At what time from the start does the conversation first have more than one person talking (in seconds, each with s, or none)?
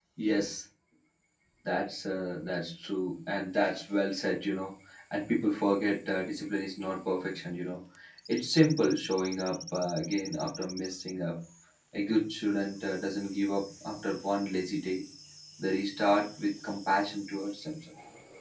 none